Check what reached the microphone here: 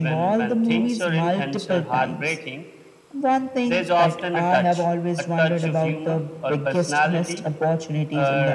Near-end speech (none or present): none